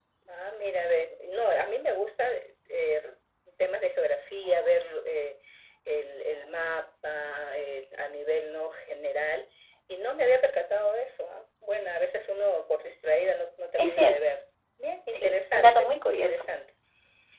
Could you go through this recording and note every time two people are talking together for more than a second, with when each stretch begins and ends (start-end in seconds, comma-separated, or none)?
15.1-16.4